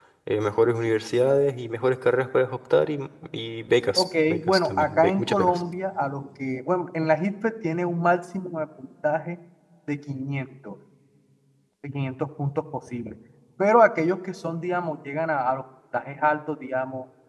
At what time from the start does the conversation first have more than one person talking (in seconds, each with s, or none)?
4.0 s